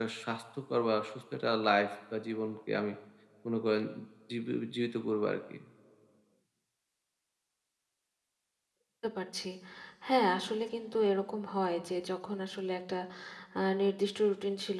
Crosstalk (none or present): none